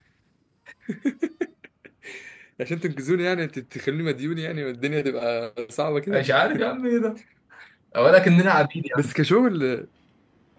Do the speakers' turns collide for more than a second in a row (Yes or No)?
No